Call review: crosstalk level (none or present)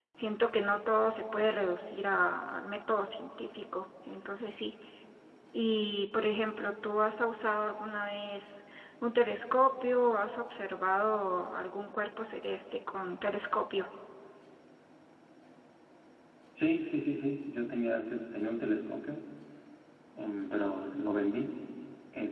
none